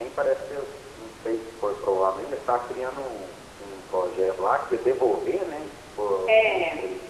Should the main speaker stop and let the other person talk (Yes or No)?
Yes